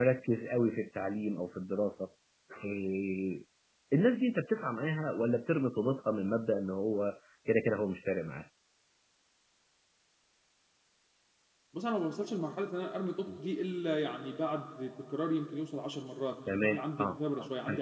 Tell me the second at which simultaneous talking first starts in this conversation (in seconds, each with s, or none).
16.5 s